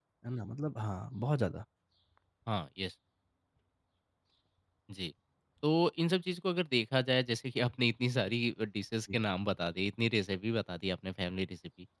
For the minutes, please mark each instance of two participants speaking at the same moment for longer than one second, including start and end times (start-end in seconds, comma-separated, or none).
none